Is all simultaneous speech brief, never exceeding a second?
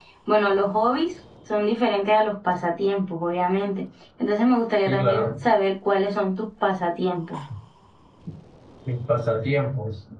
Yes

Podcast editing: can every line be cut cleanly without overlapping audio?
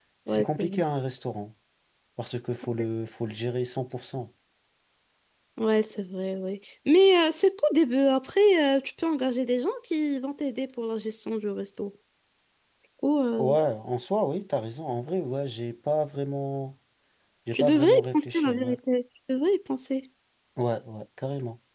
No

